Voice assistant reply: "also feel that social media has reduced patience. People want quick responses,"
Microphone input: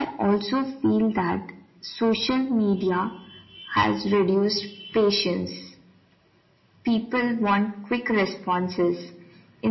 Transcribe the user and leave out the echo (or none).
none